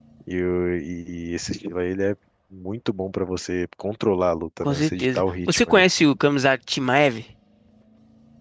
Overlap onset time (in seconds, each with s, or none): 4.6 s